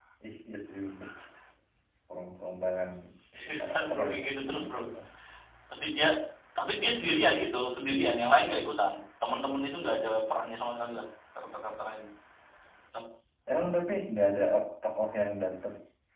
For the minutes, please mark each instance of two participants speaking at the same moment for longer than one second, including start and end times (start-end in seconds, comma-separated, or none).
3.4-4.9